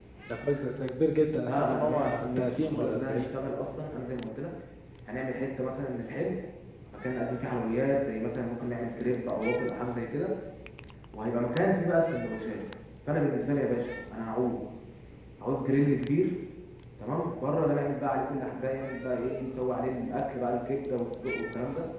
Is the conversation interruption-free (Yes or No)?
No